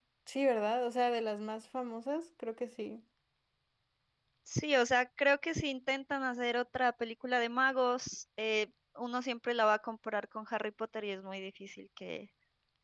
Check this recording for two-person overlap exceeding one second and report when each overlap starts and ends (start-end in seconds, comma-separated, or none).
none